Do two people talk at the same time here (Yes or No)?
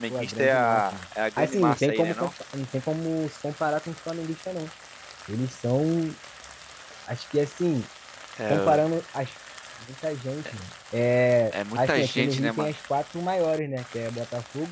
Yes